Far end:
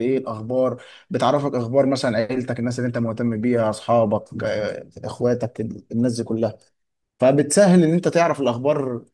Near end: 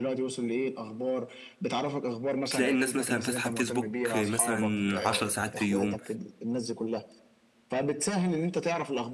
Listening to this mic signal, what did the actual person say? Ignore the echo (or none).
تلاقي الناس مثلا فاتحه فيسبوك مثلا عشر ساعات في اليوم